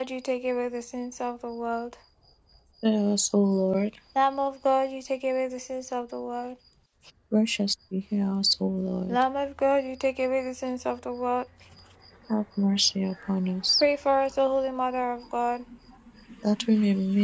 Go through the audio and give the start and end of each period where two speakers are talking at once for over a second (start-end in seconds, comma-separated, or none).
none